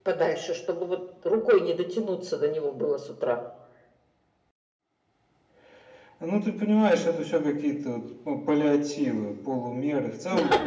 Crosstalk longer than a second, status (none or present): none